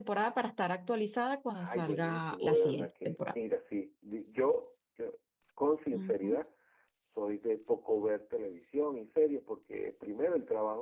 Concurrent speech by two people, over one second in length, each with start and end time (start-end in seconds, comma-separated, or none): 1.6-3.3